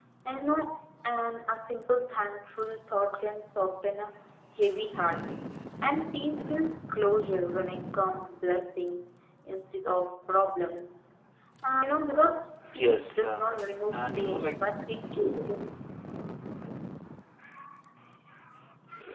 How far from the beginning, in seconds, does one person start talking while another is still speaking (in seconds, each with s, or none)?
12.6 s